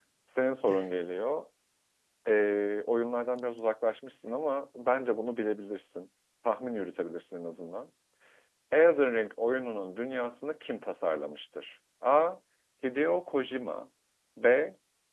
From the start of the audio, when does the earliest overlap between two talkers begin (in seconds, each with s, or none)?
none